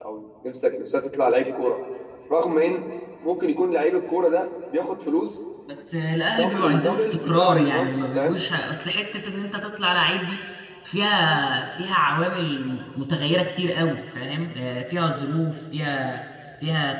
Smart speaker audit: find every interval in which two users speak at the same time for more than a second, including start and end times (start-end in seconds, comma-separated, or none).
6.4-8.4